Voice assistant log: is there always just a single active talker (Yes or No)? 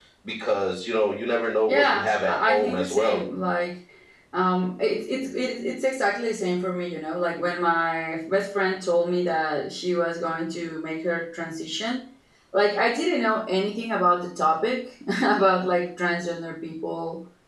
No